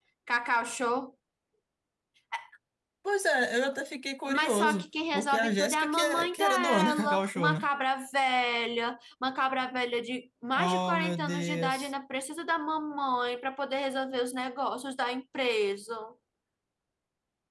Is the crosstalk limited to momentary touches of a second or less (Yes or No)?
No